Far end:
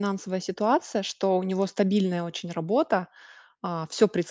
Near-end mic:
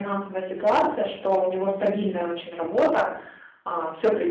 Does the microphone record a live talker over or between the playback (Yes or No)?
No